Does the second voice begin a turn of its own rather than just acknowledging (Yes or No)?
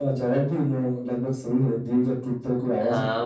Yes